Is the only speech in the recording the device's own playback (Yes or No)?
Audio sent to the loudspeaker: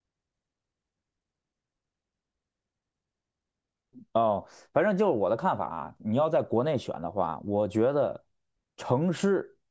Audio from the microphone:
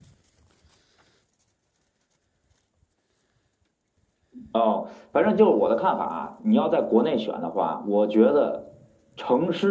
Yes